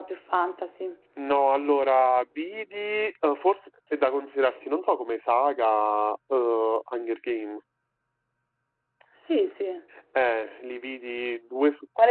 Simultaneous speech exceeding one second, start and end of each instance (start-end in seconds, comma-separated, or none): none